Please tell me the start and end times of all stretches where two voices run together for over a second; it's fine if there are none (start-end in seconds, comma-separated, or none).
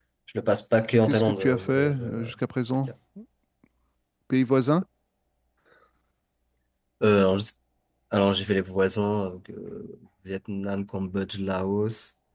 1.0-2.3